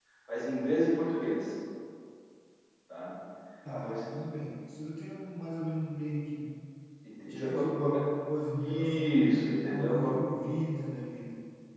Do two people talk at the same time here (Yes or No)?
Yes